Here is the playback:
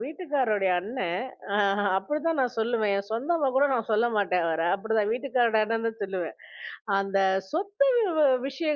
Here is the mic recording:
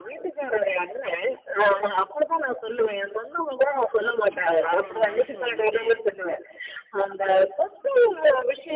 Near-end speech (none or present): present